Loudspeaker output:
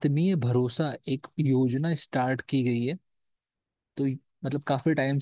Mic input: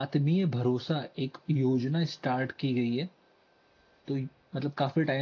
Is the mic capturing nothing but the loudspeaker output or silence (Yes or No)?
Yes